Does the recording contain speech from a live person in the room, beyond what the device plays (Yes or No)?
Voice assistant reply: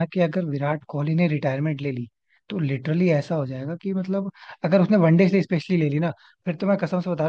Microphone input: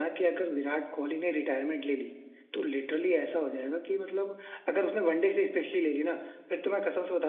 No